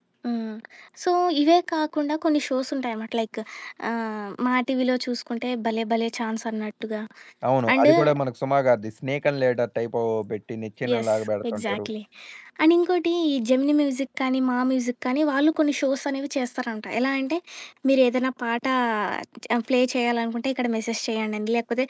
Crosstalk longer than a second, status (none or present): none